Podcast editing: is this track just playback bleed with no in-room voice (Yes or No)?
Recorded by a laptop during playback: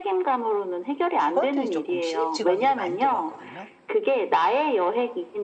No